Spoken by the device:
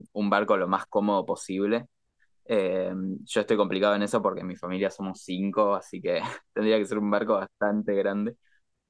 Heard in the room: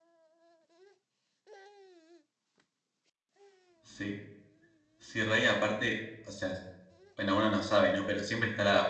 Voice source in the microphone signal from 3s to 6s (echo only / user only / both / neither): user only